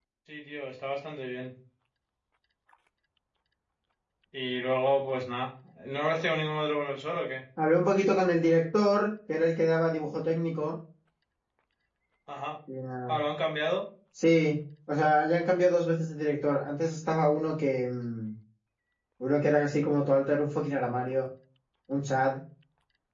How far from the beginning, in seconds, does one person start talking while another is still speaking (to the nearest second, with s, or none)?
none